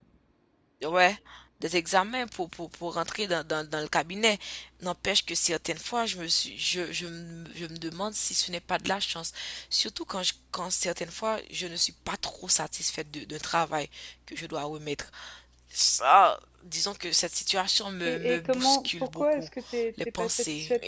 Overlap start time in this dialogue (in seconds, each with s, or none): 18.0 s